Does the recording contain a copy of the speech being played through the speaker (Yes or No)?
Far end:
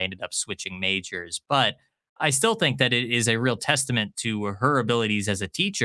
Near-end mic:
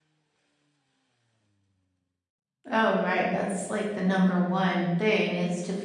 No